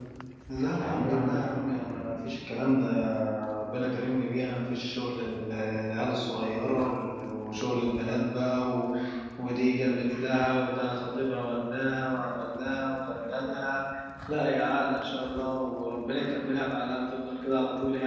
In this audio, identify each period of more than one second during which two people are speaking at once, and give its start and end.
0.8-2.1

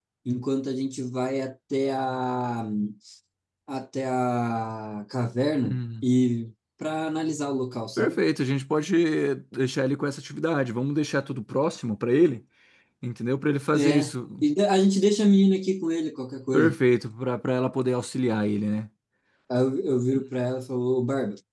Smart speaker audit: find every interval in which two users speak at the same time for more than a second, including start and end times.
none

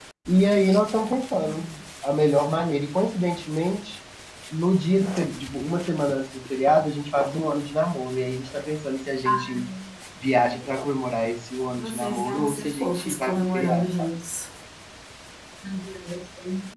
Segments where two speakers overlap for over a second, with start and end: 11.8-14.1

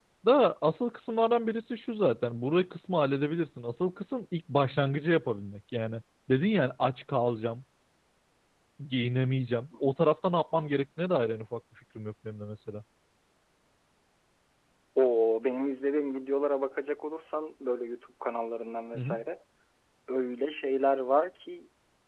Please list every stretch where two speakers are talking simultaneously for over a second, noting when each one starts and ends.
none

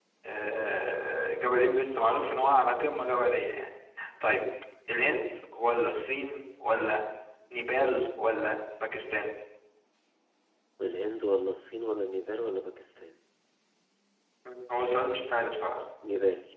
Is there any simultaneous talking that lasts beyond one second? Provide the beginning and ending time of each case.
none

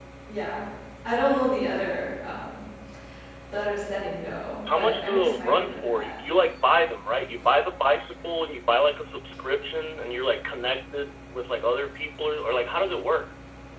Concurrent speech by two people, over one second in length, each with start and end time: 4.7-6.1

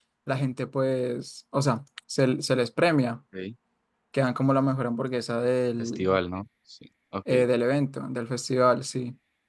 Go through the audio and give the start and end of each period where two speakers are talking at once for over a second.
none

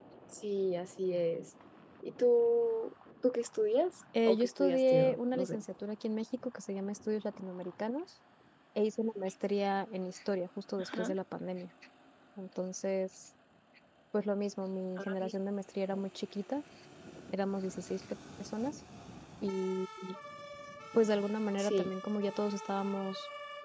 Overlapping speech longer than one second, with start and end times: 4.3-5.6

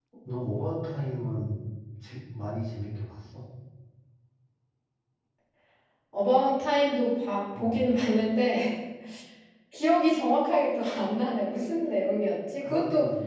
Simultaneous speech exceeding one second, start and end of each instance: none

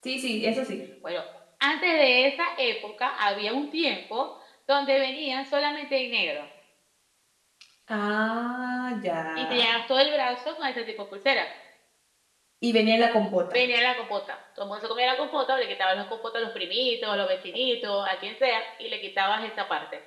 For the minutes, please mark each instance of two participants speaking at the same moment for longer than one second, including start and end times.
none

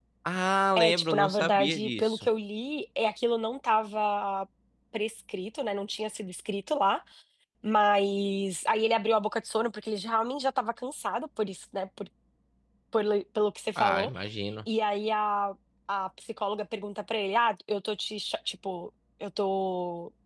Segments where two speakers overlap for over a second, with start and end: 0.8-2.3

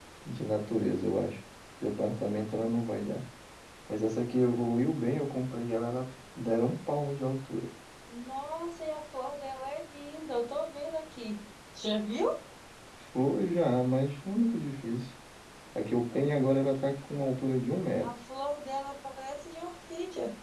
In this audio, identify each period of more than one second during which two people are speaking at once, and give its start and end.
none

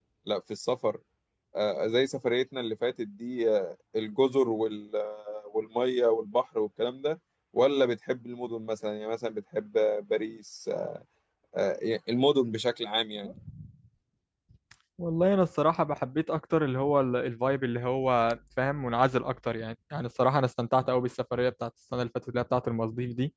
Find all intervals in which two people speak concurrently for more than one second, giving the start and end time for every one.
none

